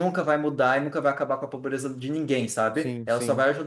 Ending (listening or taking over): listening